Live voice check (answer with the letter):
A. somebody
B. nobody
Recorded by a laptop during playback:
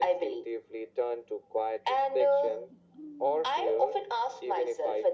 B